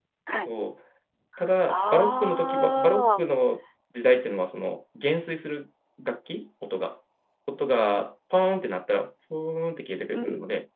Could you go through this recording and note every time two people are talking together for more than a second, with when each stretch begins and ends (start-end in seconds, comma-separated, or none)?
1.7-3.2